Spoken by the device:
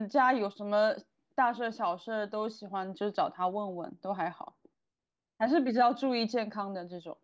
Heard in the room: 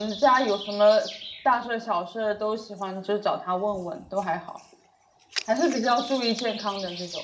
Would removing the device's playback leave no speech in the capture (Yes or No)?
Yes